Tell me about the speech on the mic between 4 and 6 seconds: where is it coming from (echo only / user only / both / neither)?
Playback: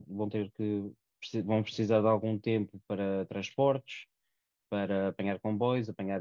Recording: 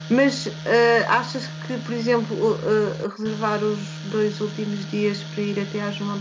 user only